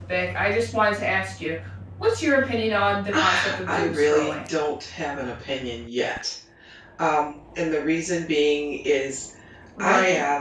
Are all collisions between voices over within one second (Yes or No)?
No